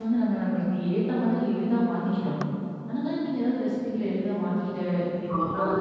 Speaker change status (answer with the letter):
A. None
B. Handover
B